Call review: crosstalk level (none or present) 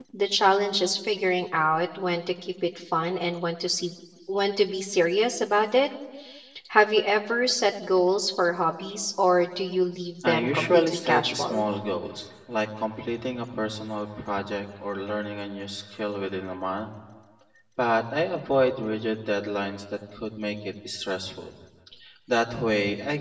present